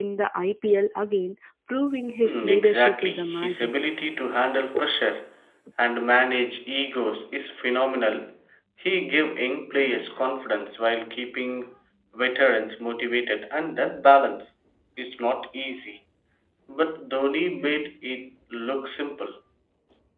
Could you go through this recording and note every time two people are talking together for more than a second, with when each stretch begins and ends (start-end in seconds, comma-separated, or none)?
2.2-3.7